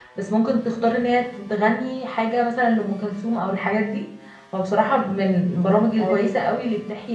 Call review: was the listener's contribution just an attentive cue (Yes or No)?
Yes